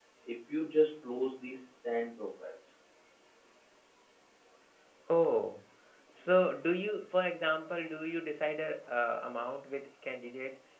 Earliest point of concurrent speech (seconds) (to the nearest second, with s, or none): none